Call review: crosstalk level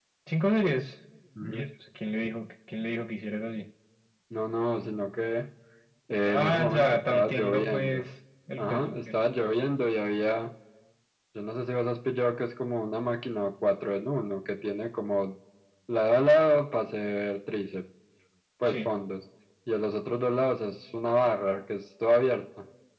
present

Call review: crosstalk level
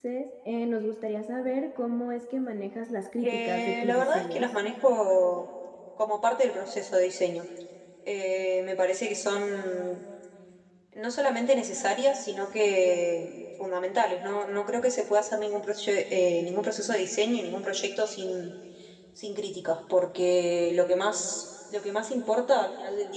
present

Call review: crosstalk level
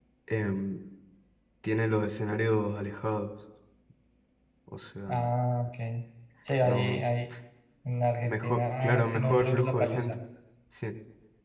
present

